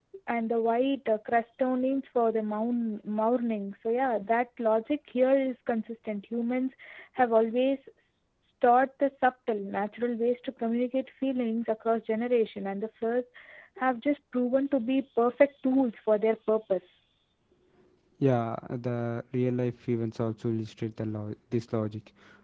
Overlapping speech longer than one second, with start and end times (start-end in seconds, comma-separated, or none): none